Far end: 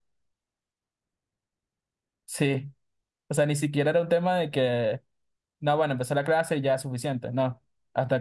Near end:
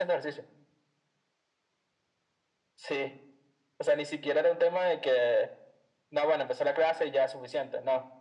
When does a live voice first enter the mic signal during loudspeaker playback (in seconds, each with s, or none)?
none